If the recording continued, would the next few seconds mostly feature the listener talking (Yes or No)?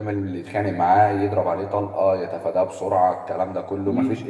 No